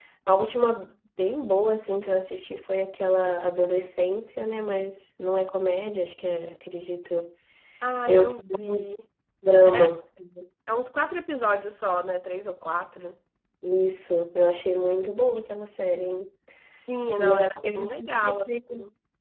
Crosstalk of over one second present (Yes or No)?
Yes